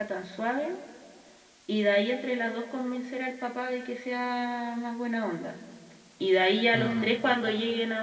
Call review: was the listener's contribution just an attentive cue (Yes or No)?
Yes